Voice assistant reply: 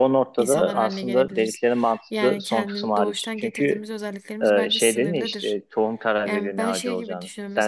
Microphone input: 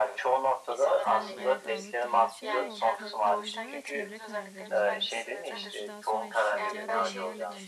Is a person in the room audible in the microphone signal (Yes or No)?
Yes